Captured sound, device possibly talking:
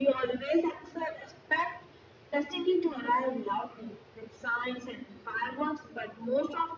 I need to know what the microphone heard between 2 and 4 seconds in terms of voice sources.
echo only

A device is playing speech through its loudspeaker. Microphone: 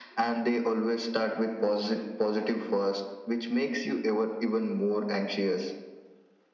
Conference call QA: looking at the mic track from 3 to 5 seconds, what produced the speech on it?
echo only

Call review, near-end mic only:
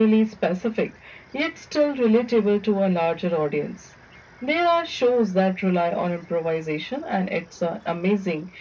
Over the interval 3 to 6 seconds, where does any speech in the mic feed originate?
echo only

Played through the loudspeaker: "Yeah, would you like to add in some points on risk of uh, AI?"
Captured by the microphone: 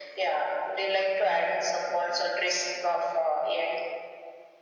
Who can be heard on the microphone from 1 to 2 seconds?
echo only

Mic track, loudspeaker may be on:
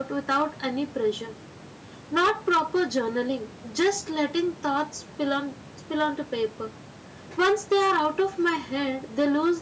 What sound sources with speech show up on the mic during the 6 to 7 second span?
user only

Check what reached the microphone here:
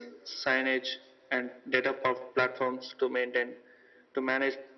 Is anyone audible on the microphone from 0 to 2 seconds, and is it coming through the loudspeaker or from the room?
echo only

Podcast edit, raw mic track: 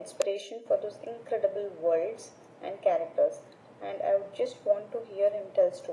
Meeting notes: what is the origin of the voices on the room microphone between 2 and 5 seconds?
echo only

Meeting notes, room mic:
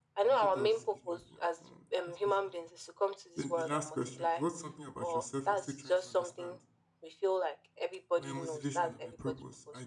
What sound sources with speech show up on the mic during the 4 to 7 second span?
both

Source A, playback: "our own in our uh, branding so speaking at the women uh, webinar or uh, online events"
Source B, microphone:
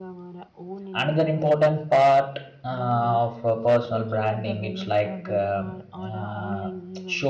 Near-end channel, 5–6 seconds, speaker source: both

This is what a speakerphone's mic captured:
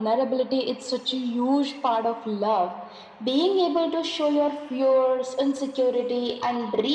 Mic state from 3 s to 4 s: echo only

